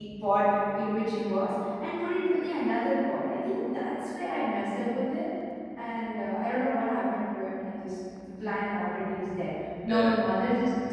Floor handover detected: No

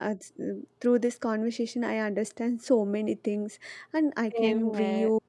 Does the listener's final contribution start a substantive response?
No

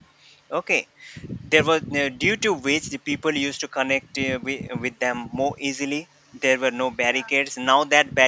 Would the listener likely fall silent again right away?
Yes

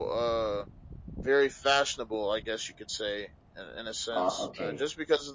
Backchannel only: Yes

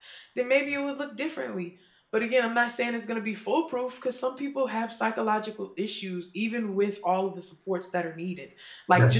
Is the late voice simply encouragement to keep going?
Yes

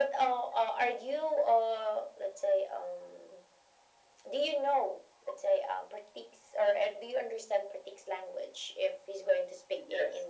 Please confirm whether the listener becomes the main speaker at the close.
Yes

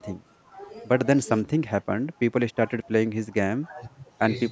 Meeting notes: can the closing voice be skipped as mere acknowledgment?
Yes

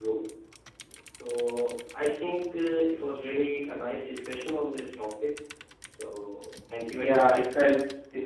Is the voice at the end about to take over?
Yes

